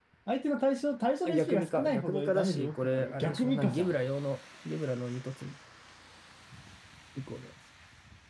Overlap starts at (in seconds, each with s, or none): 1.2 s